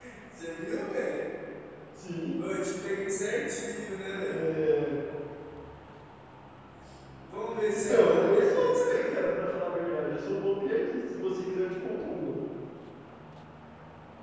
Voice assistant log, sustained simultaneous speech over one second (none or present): present